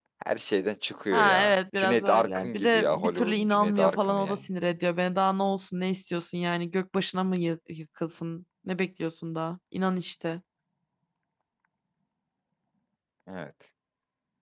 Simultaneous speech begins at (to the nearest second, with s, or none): 1 s